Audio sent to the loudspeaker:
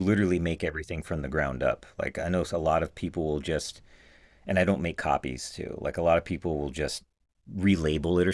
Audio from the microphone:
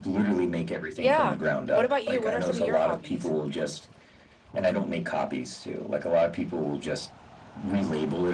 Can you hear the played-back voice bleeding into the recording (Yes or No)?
Yes